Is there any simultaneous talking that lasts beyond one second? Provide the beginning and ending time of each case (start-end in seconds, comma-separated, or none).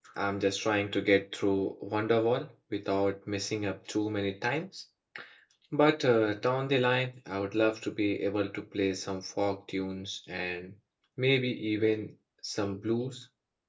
none